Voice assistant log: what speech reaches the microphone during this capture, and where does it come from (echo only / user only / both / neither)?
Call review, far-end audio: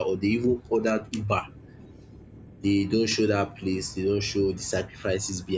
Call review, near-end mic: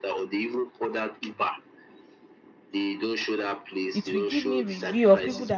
both